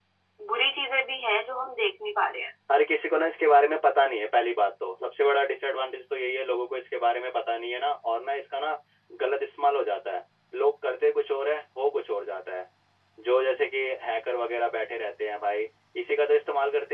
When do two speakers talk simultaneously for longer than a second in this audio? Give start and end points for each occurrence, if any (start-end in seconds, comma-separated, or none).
none